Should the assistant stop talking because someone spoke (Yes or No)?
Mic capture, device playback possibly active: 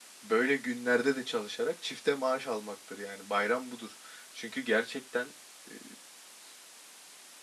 Yes